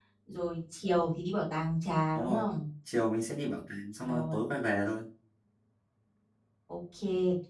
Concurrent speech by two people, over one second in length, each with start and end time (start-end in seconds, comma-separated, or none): none